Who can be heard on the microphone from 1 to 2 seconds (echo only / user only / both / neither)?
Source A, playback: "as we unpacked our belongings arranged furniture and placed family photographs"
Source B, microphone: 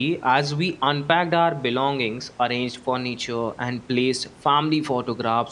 echo only